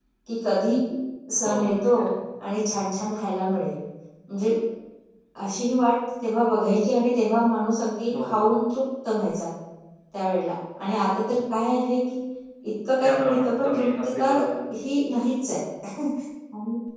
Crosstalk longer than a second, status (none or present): present